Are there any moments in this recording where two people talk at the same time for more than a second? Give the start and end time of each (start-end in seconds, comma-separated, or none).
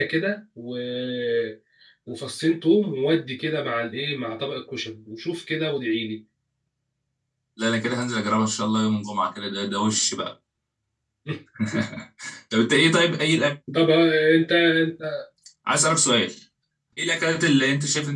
none